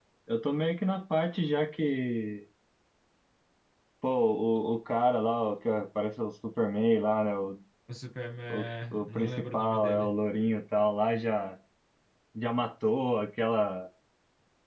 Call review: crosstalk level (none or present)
present